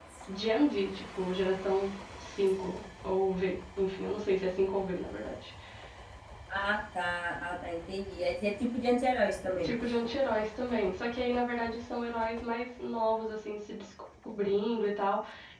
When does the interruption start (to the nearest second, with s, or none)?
none